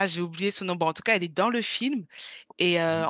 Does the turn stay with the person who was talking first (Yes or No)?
Yes